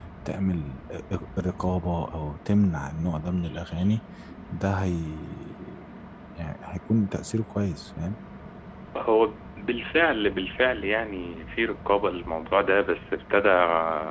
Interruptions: none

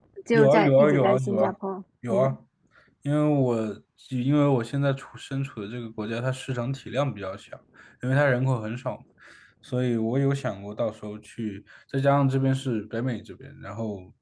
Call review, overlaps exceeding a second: present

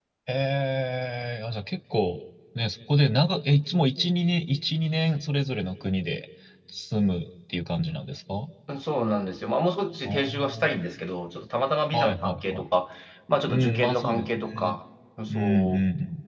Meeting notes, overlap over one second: present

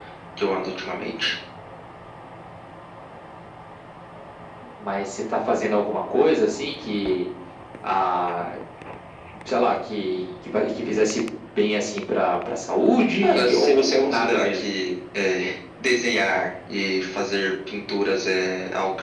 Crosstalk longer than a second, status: present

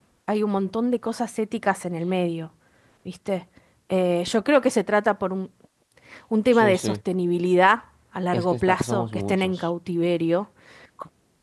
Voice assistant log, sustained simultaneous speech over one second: present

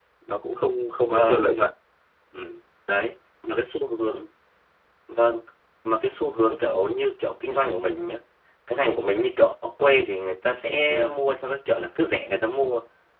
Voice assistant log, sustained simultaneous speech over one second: none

